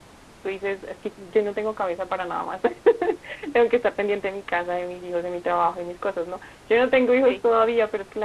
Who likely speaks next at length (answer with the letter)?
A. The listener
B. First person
B